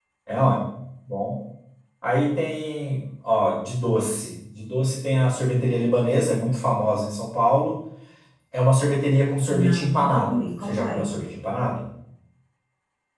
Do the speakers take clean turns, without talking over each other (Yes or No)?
No